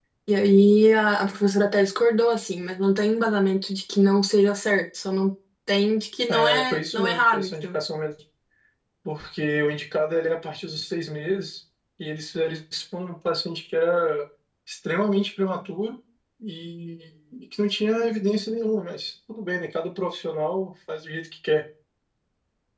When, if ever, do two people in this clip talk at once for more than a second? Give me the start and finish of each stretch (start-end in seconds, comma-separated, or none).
6.3-7.8